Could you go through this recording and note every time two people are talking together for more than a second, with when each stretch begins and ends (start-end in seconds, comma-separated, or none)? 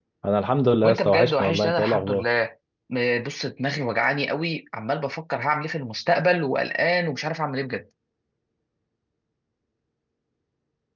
0.8-2.2